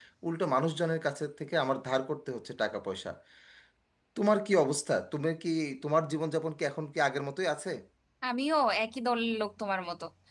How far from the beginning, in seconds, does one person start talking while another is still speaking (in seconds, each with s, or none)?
none